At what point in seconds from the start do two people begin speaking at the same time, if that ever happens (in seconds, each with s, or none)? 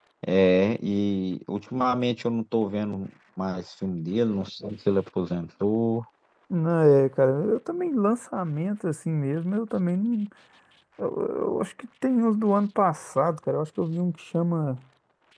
none